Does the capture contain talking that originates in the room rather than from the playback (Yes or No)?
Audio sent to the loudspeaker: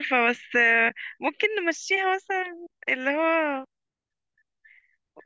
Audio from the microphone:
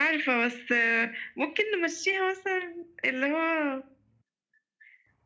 No